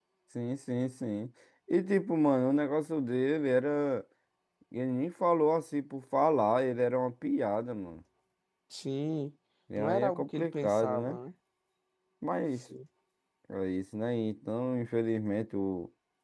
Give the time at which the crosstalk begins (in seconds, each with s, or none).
9.8 s